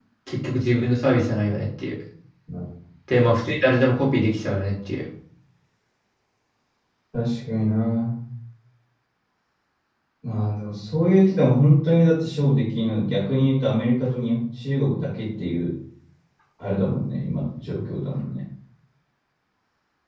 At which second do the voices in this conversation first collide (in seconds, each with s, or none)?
none